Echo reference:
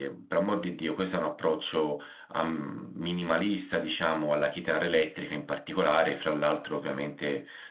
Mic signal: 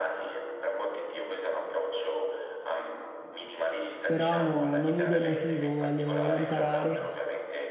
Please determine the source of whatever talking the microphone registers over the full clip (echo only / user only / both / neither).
both